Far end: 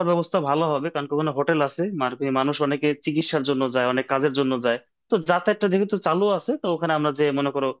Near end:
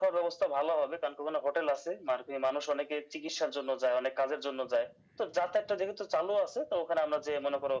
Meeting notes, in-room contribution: none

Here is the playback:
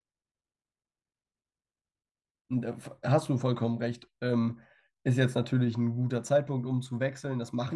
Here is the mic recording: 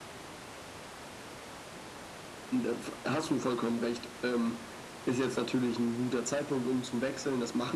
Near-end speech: none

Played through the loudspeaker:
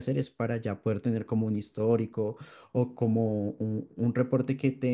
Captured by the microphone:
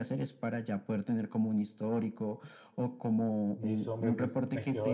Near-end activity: present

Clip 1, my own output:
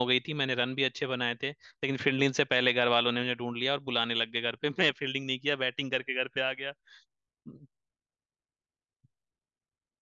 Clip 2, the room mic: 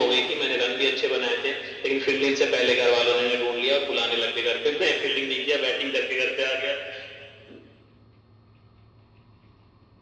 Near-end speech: none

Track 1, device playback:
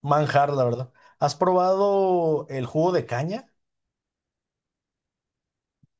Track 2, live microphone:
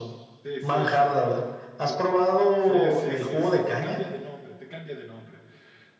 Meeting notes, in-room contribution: present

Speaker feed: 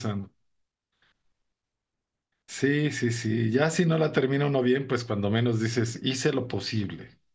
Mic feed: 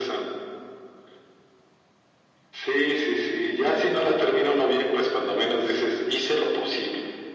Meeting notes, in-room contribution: none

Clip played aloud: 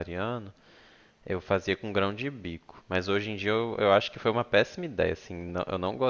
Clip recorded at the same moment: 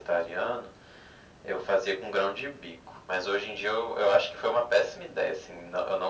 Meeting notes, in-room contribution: none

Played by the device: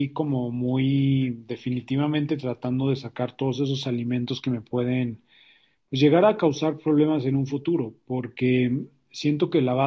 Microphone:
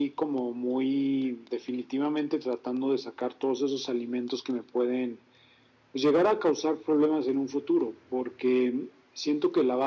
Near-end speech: none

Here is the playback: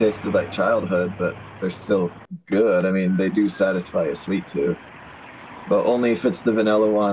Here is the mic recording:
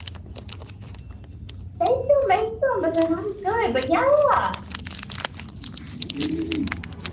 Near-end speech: present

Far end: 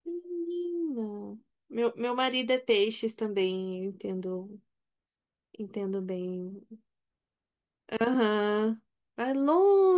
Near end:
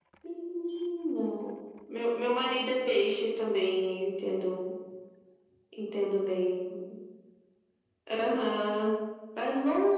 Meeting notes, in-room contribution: none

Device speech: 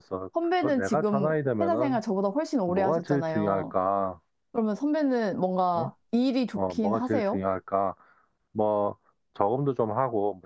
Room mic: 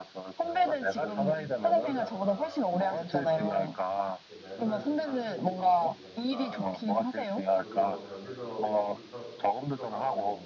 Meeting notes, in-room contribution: present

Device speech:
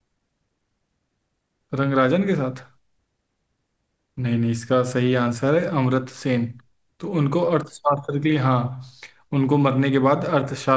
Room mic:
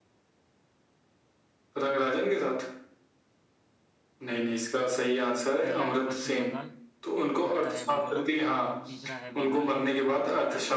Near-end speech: present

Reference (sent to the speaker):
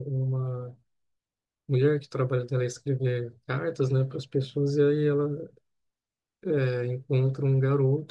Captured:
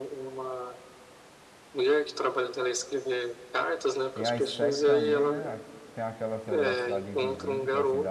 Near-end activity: present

